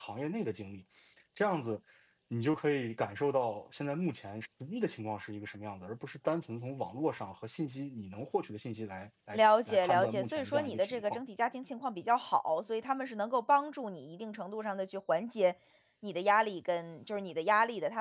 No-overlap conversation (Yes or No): No